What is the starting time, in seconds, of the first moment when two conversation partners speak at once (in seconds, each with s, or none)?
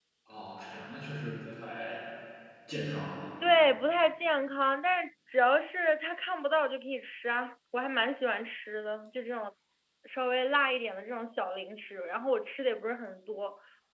none